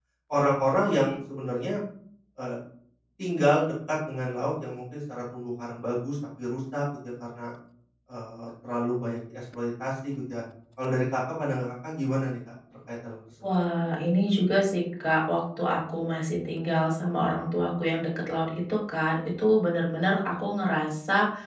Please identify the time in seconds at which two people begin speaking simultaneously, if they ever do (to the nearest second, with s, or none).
none